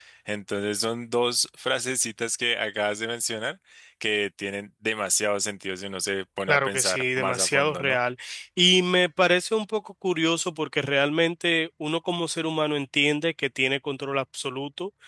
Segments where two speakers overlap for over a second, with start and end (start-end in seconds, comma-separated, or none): 6.5-8.0